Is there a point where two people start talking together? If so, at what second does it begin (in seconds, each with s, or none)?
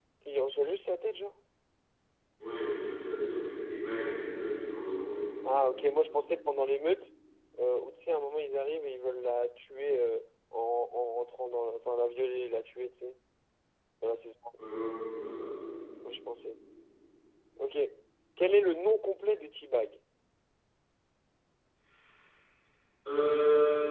none